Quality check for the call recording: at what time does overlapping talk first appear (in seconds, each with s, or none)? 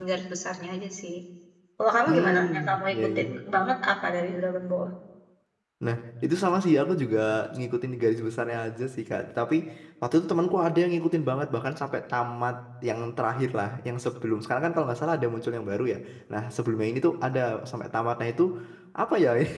2.1 s